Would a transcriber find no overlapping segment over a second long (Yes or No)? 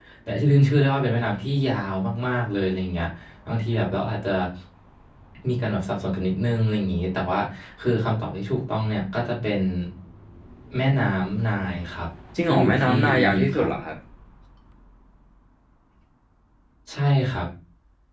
No